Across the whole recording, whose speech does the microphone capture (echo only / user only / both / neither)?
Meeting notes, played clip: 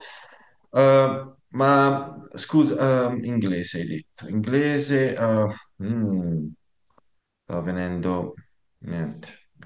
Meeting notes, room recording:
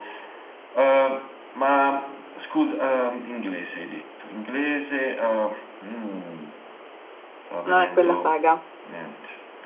both